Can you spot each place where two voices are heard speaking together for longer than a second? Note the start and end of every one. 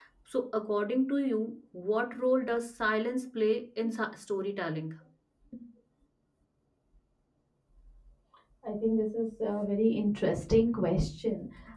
none

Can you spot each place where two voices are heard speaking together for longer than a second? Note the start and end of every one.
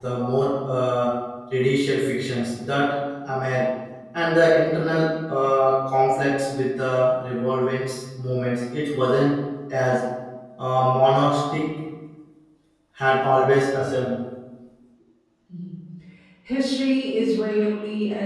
none

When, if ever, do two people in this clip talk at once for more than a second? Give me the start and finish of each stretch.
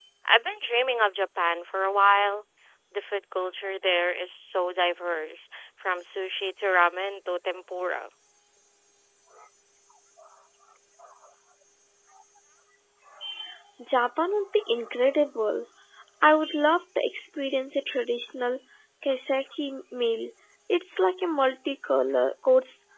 none

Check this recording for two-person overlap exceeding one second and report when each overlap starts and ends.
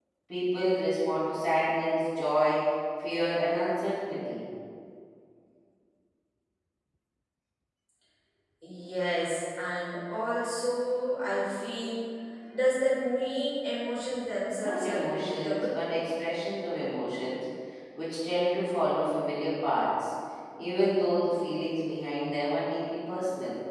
14.6-15.8

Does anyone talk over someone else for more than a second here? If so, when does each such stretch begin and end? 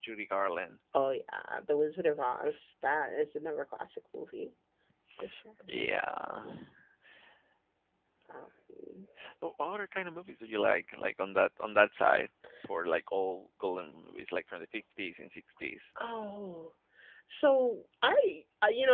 none

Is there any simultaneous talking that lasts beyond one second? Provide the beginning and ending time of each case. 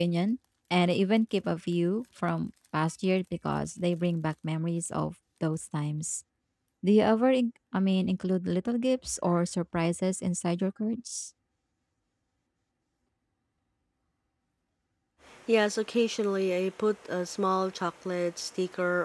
none

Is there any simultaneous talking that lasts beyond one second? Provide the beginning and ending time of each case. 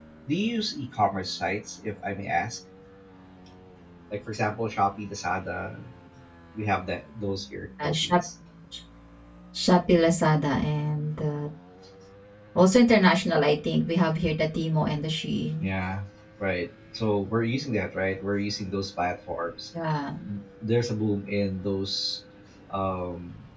none

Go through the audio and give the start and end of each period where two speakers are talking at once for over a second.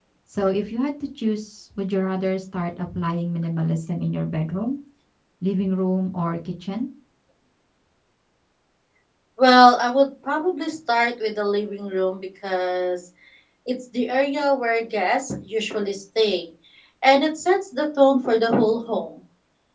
none

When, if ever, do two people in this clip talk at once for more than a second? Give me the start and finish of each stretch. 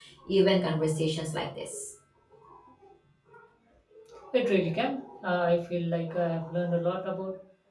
none

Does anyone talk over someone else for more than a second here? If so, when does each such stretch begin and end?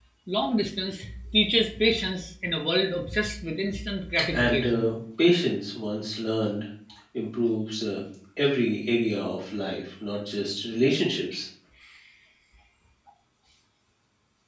none

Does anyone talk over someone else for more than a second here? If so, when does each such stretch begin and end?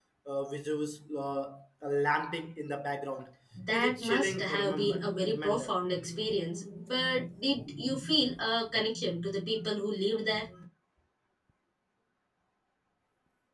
3.7-5.8

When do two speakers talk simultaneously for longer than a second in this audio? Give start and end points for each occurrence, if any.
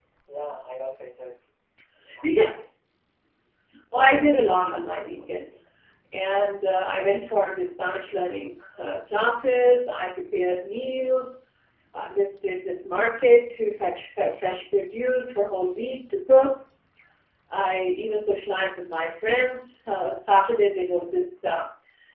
3.9-5.4

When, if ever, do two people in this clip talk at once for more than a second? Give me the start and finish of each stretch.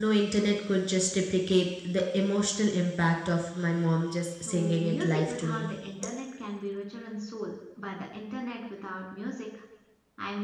4.5-5.7

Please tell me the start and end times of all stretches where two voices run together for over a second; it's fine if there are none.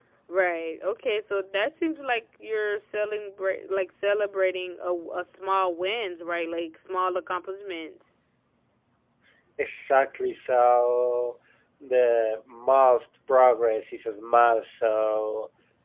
none

